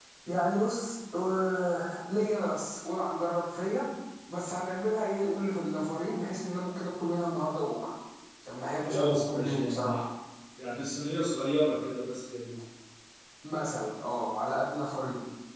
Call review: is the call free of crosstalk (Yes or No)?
No